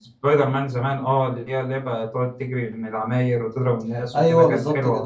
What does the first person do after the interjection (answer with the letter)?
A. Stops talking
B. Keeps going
A